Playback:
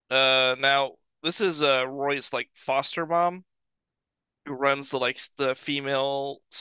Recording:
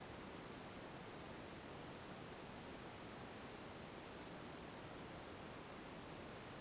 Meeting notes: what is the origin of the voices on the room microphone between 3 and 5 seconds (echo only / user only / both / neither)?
neither